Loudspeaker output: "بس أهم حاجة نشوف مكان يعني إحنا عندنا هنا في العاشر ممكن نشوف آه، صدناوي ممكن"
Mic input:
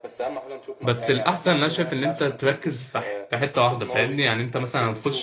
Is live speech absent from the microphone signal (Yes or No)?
No